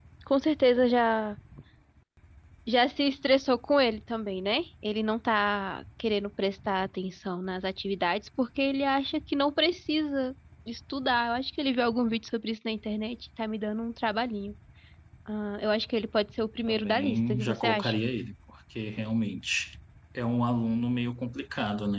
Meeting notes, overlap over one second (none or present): present